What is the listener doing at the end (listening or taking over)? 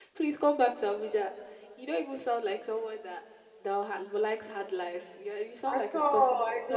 taking over